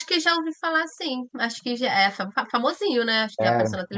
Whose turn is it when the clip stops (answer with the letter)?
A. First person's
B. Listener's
B